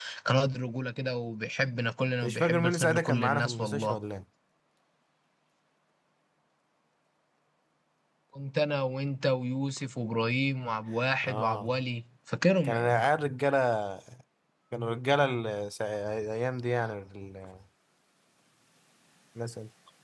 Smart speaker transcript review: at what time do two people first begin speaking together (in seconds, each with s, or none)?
2.2 s